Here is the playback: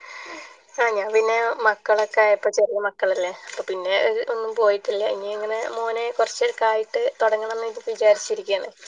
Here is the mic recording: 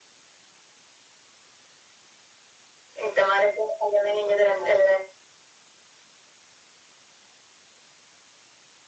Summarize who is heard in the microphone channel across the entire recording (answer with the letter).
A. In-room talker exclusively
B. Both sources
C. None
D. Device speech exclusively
A